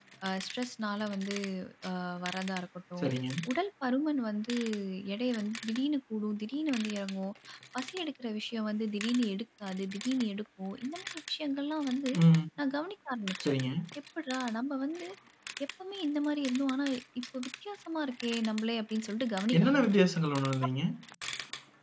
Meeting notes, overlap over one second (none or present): none